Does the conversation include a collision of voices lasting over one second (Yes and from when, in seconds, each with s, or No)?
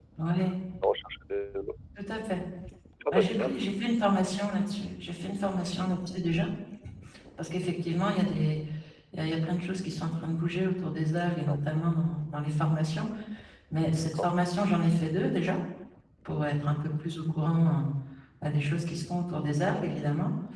No